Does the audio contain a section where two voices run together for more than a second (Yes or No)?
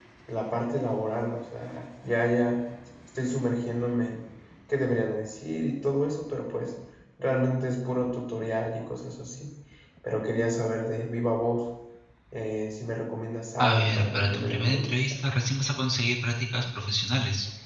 Yes